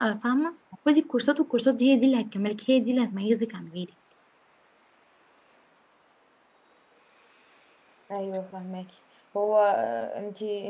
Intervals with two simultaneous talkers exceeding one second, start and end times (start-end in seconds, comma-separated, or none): none